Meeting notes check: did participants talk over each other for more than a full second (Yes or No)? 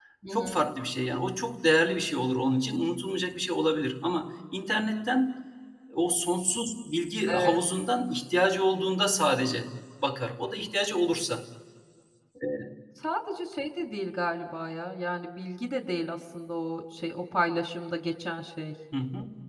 No